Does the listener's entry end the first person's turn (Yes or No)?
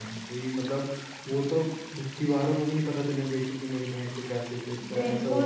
Yes